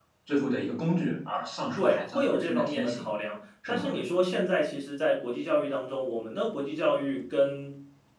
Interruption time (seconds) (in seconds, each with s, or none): 1.8 s